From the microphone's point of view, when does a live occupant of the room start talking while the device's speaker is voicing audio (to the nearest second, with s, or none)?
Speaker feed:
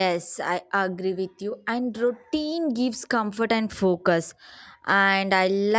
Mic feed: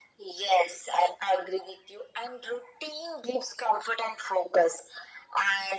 none